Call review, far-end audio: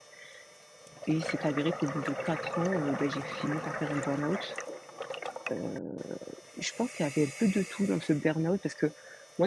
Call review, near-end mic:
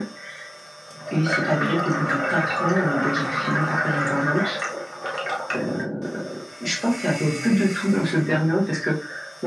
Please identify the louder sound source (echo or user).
echo